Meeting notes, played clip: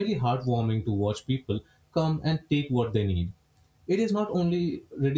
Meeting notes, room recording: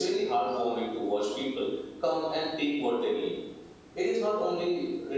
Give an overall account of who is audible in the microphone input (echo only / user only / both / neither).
echo only